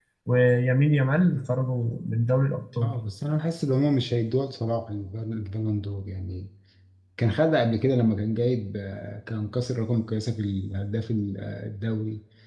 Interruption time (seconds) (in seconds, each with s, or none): none